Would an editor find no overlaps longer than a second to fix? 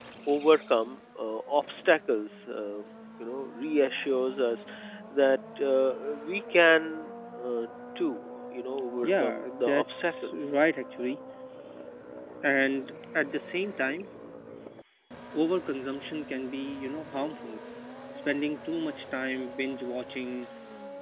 No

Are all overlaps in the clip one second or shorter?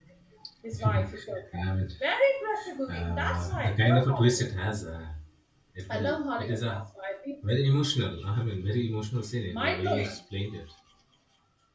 No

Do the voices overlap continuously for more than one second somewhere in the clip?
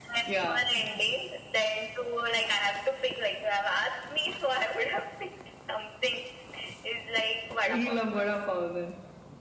No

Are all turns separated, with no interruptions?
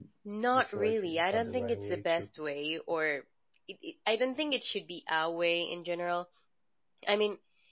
No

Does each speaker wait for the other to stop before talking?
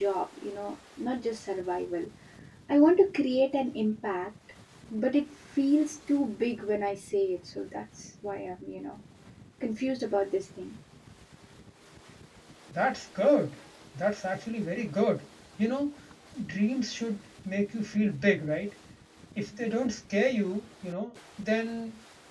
Yes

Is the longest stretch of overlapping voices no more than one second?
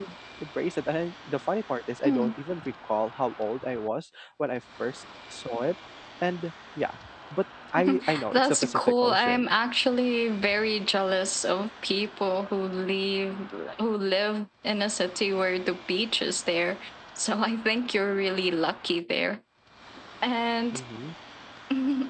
No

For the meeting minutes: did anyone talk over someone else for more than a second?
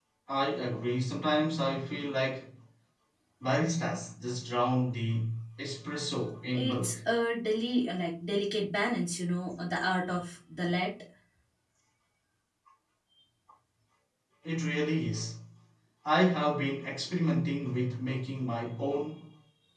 No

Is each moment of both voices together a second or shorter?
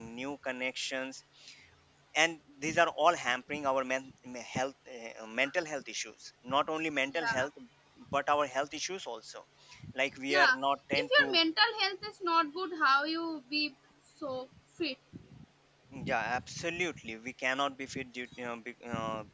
Yes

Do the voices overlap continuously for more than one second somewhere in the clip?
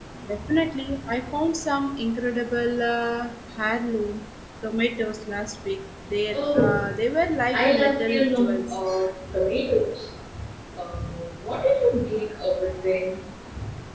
Yes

